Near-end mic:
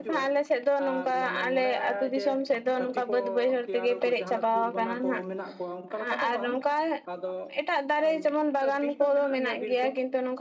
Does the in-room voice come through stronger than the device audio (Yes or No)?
Yes